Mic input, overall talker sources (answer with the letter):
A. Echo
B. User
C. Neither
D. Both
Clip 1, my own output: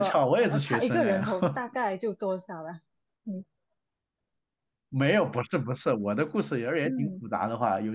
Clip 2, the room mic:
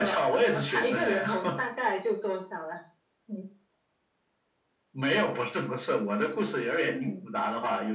A